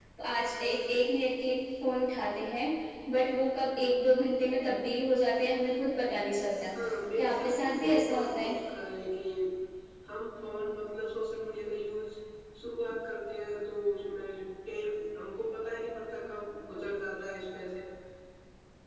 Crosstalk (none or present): present